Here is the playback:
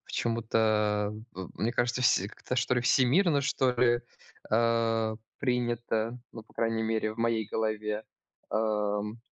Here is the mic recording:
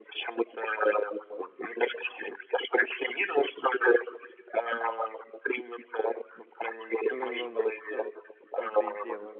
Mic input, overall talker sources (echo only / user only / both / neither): both